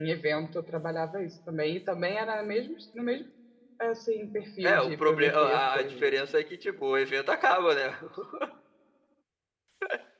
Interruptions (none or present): present